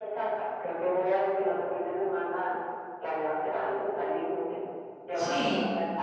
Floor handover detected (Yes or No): Yes